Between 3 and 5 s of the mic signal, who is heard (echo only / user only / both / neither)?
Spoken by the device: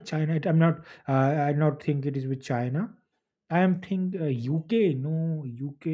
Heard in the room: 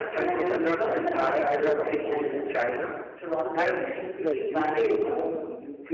both